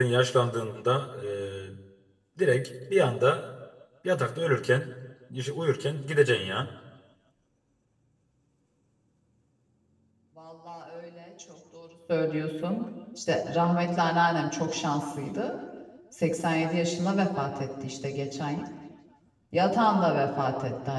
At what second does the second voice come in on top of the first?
none

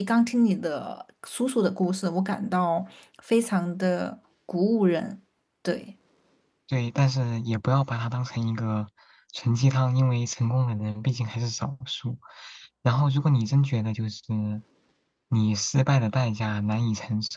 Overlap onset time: none

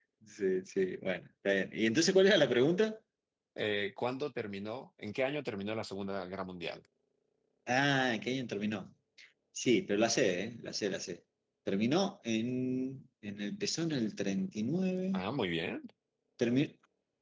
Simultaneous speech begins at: none

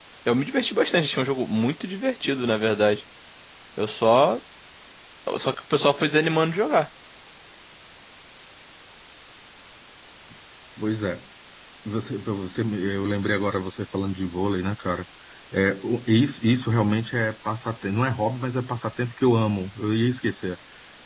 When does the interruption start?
none

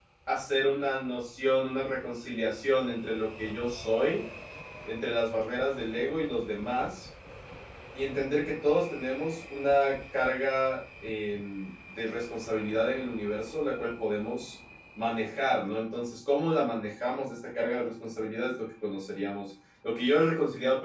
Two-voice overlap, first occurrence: none

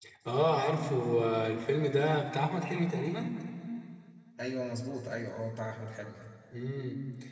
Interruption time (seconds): none

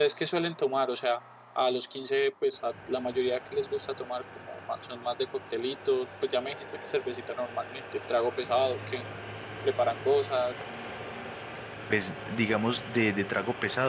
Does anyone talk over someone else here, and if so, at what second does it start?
none

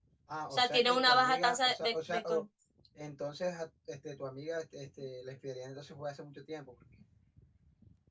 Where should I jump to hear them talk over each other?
0.5 s

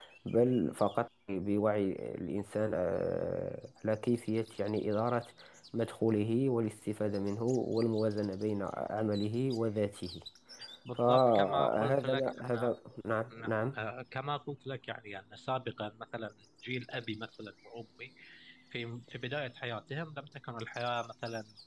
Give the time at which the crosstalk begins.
11.0 s

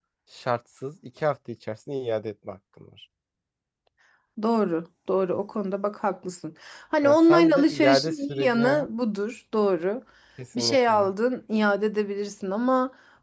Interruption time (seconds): 7.0 s

